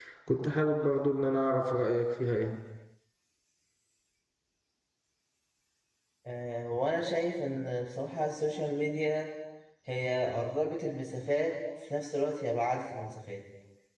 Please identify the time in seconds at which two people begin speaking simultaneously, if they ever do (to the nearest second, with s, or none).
none